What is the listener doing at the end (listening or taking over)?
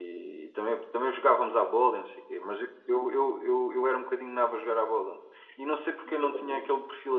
listening